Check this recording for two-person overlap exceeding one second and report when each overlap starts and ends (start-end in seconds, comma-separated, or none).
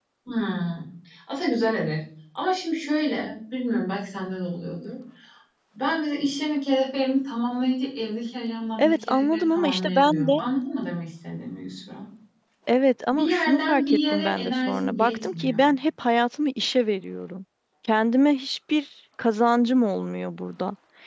8.8-10.3, 13.1-15.6